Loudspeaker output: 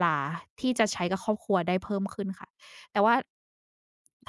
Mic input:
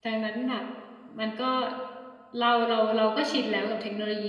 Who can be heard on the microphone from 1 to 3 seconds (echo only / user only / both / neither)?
user only